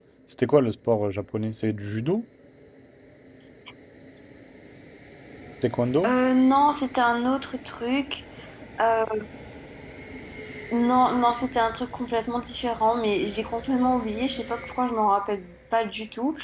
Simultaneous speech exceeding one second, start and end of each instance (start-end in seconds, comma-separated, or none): none